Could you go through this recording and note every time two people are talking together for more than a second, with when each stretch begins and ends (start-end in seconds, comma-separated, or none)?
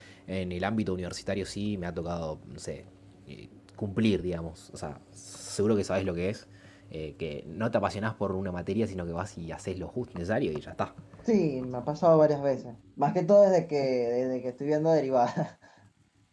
none